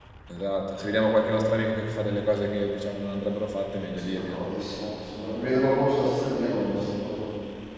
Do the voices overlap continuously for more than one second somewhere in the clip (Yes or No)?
No